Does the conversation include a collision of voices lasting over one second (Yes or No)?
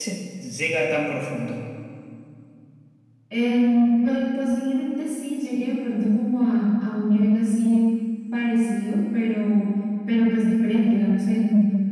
No